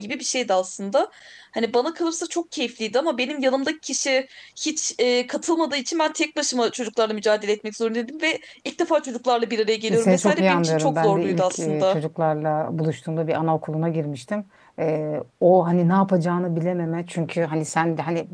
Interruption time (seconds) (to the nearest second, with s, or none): 10 s